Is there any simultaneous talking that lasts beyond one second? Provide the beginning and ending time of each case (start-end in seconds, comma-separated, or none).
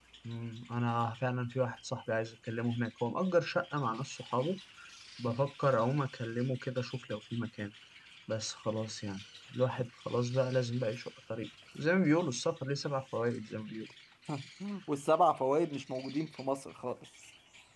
none